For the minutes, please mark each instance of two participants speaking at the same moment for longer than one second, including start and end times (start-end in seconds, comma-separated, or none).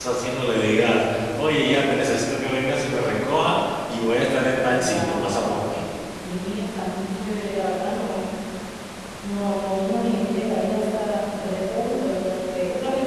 4.6-5.8